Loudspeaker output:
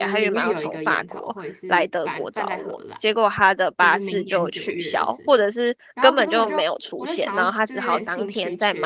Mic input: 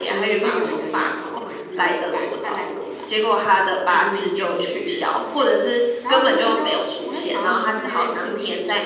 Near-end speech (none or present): none